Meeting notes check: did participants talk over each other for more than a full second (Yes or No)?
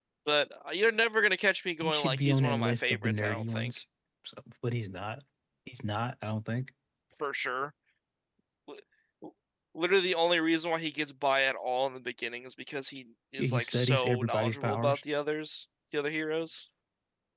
Yes